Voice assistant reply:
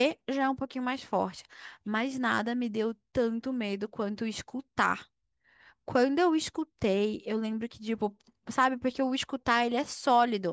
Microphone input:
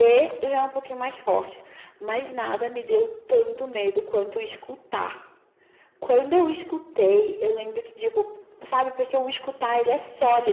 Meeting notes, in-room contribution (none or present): none